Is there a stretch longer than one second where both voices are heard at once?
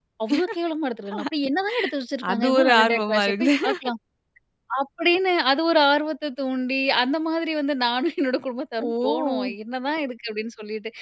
Yes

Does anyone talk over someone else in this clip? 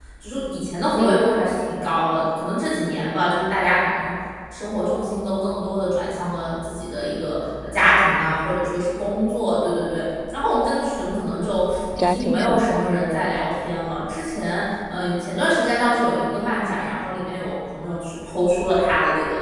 Yes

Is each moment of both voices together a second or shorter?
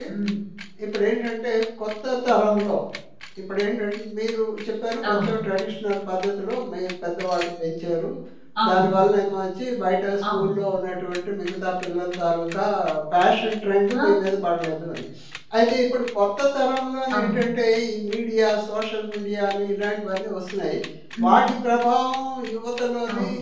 Yes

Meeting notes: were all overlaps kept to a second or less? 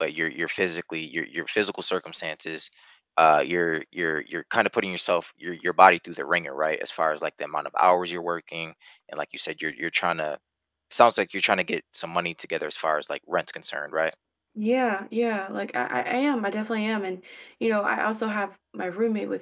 Yes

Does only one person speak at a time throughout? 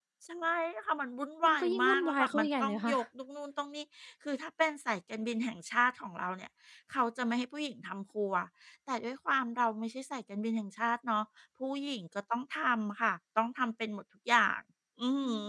No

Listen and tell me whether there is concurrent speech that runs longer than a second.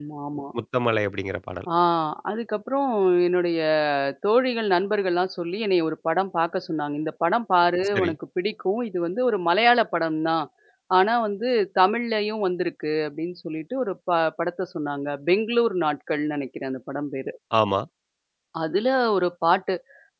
No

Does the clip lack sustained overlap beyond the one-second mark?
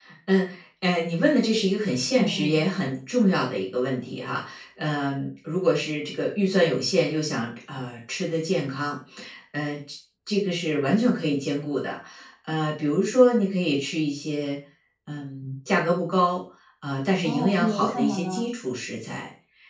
No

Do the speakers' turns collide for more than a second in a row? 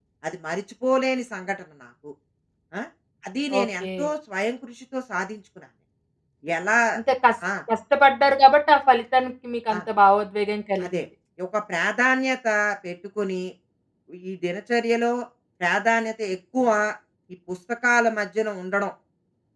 No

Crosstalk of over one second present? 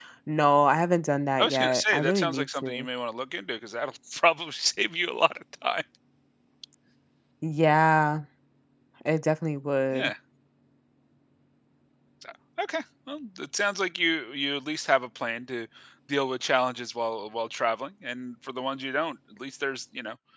Yes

